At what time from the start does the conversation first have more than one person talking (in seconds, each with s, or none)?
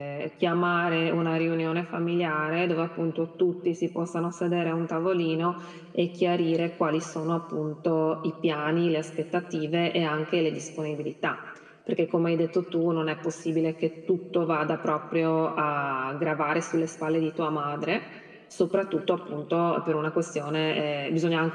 none